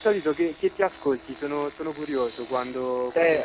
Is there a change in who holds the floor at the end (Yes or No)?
Yes